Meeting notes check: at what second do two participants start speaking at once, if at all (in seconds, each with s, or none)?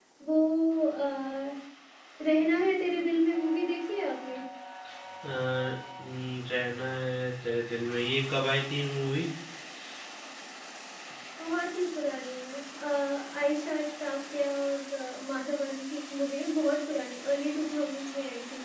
none